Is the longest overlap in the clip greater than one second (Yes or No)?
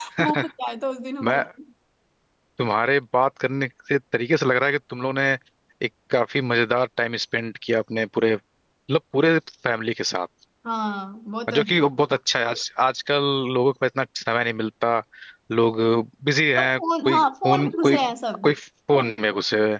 Yes